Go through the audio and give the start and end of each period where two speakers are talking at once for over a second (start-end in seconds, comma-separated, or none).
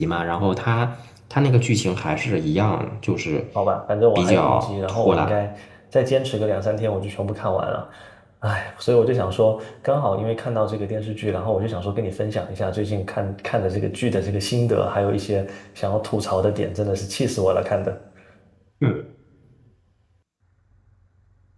4.2-5.4